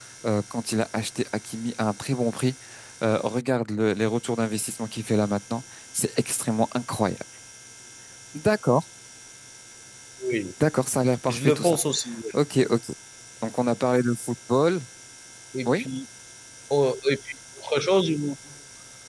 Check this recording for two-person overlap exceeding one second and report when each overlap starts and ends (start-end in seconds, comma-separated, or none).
none